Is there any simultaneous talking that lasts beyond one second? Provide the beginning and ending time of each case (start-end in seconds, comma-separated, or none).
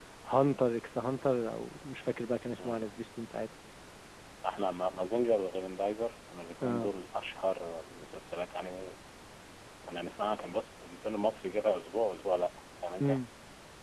none